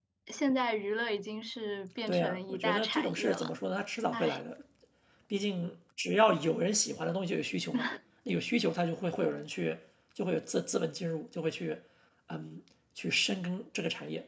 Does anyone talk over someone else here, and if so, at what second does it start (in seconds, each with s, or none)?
2.1 s